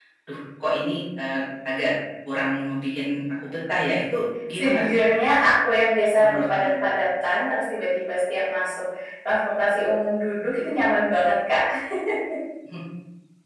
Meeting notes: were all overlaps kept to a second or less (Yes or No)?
Yes